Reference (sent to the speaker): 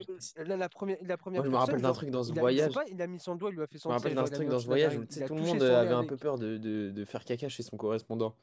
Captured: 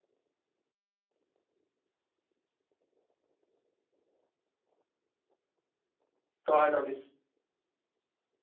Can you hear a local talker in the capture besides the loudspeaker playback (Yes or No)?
Yes